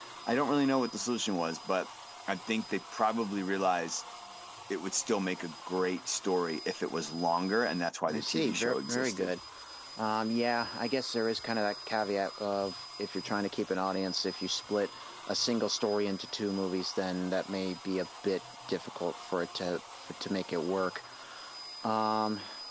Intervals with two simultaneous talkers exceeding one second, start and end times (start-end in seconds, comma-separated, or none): 8.1-9.3